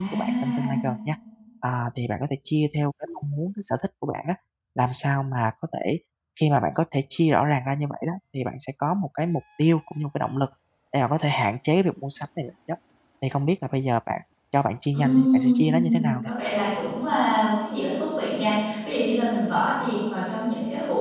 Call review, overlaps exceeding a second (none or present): present